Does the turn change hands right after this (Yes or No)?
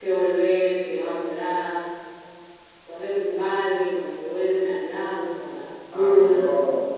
Yes